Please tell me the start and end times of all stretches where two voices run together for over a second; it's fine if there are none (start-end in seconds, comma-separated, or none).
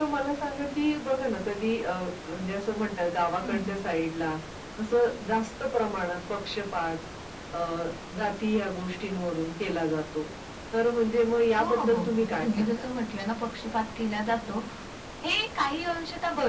11.6-12.8